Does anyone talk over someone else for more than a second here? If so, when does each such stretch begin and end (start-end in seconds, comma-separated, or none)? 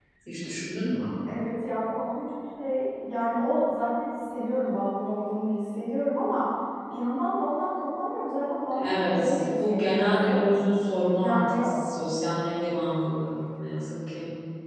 8.7-10.4